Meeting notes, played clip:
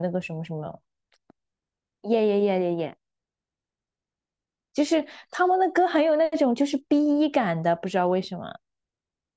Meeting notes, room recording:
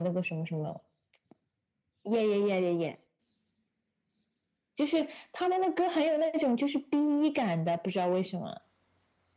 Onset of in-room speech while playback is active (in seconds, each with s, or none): none